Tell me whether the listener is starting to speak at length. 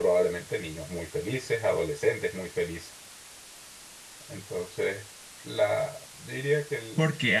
Yes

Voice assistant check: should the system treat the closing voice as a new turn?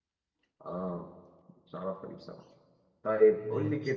No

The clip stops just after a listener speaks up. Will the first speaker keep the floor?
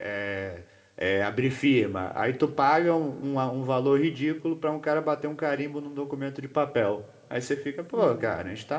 Yes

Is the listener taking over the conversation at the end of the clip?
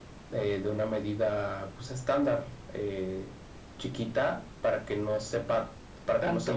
No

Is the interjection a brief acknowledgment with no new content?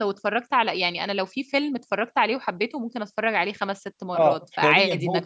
No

